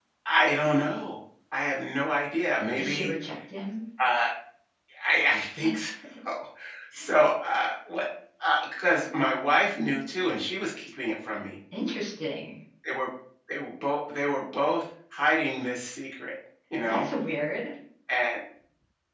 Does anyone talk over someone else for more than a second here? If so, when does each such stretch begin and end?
none

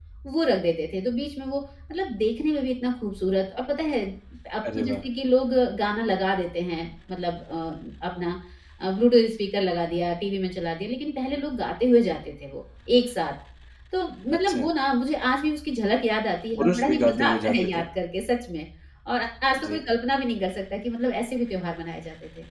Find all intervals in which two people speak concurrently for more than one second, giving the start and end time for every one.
16.6-17.9

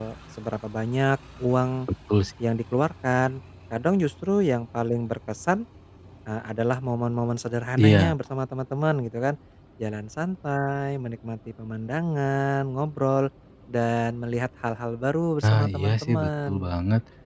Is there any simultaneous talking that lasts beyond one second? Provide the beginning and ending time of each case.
15.4-16.7

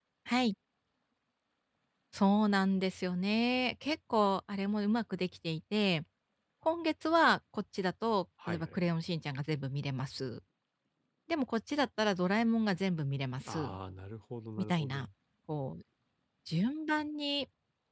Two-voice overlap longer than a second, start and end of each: none

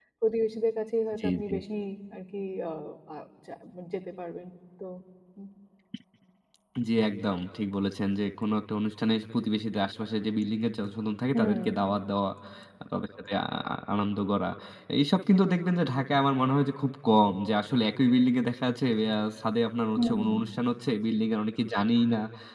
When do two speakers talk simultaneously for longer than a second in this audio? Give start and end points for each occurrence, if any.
none

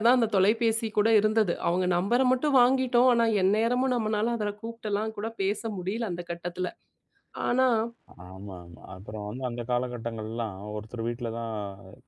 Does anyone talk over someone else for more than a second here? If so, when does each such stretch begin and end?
none

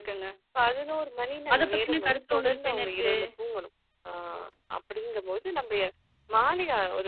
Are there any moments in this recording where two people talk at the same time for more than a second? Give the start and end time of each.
1.5-3.1

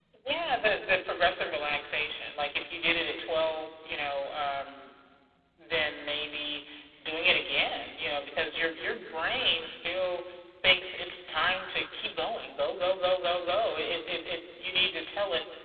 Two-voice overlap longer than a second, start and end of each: none

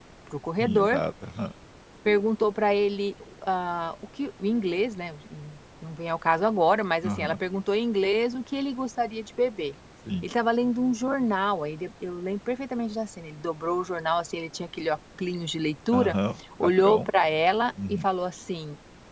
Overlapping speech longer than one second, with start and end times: none

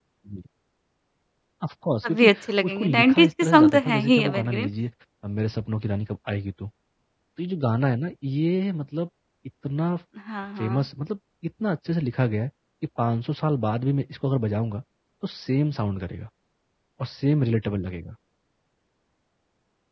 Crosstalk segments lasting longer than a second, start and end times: 2.0-4.7

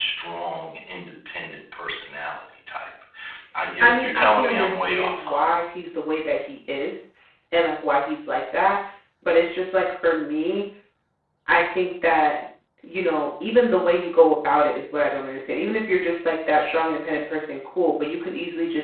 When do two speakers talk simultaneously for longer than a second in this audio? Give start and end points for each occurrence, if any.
3.8-5.5

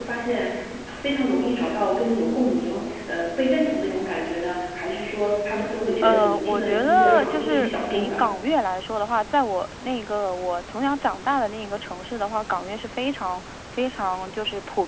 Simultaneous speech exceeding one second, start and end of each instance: 6.0-8.2

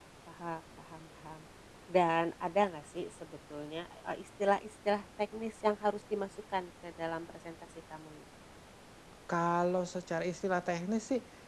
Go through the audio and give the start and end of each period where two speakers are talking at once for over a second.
none

